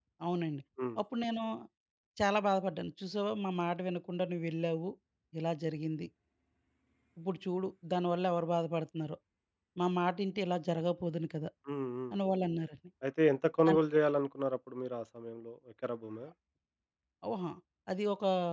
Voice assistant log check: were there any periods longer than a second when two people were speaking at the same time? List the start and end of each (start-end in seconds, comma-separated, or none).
none